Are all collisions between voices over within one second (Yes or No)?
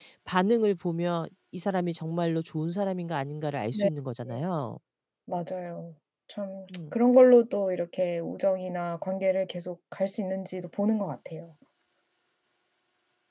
Yes